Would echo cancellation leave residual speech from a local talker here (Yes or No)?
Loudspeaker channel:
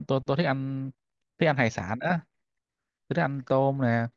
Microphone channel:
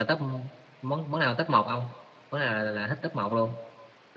Yes